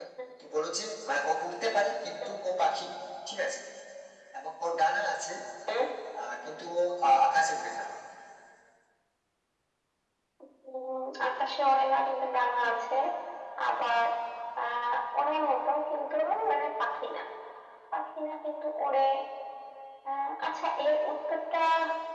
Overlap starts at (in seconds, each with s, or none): none